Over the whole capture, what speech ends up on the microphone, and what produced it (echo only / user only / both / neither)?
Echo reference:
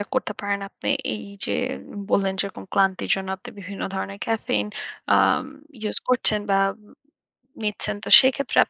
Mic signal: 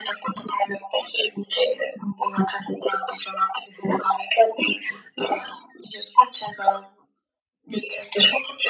echo only